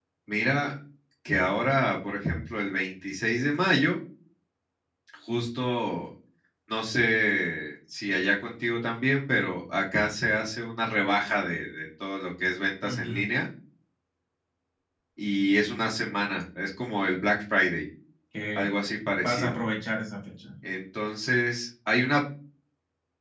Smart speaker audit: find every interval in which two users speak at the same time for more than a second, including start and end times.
none

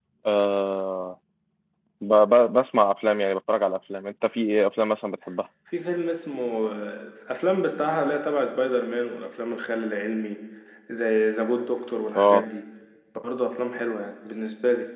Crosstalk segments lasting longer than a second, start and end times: none

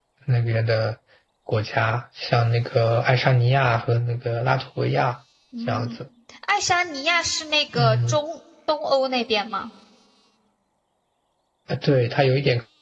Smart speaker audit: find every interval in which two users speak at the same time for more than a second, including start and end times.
none

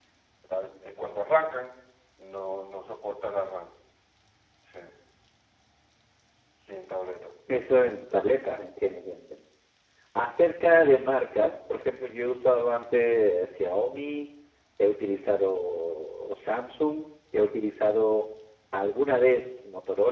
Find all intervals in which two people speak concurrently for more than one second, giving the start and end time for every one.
none

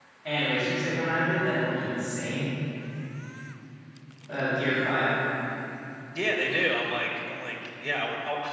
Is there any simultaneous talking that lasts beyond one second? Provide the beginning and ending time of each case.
none

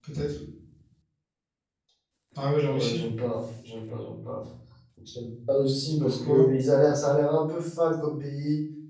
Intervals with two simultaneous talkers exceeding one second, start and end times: none

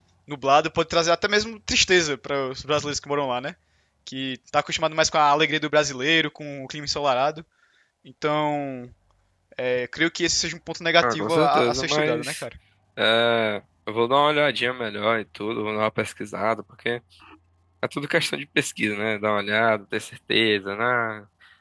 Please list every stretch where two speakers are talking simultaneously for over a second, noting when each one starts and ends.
11.0-12.4

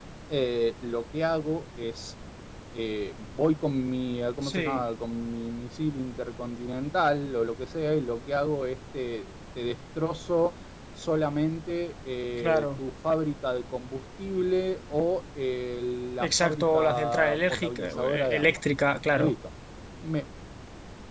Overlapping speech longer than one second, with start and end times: 16.2-18.6

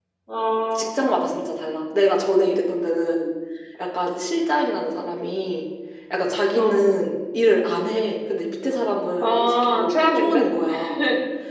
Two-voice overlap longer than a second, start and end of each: 9.2-10.4

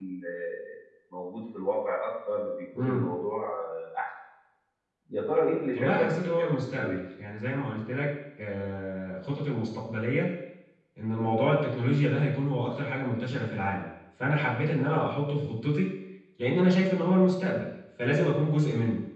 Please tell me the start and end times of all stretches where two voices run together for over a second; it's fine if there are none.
5.8-7.0

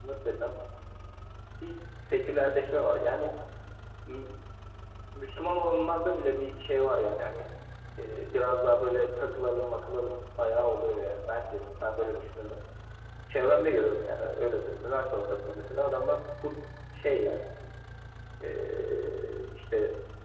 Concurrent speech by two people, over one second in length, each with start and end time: none

